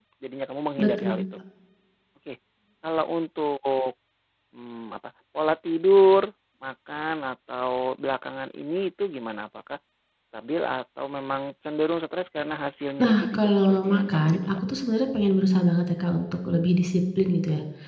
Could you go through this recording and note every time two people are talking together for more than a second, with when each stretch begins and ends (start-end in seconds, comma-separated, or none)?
13.0-14.5